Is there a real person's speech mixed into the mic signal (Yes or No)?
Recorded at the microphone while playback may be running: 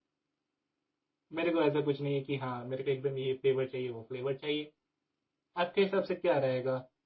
Yes